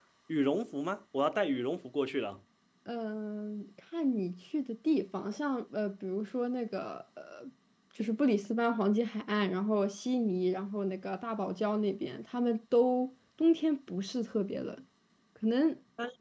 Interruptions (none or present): none